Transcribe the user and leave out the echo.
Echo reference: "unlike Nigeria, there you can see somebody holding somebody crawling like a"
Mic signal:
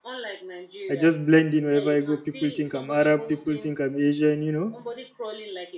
i just blend in wherever i go people think i'm arab people think i'm asian you know

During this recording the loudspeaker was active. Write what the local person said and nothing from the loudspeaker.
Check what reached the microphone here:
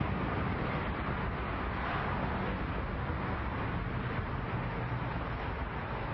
none

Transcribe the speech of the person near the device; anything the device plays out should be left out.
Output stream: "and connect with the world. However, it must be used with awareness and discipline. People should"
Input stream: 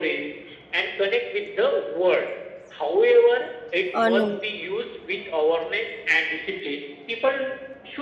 uh, no

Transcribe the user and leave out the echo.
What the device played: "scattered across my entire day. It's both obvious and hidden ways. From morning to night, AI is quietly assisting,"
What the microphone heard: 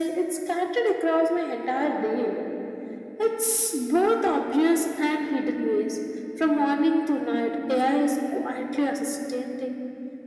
none

